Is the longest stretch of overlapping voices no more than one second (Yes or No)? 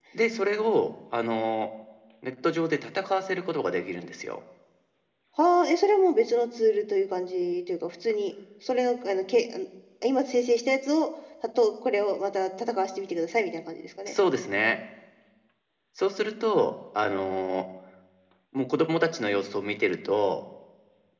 Yes